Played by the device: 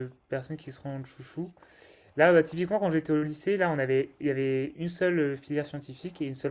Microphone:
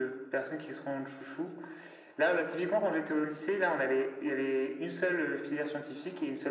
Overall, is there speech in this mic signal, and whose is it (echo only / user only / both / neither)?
echo only